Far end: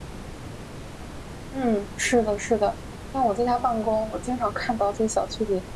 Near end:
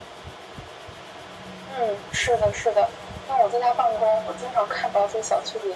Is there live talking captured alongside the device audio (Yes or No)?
No